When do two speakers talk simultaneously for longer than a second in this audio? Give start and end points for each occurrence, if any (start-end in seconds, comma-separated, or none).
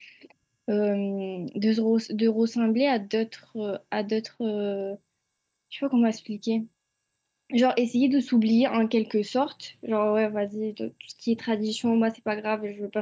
none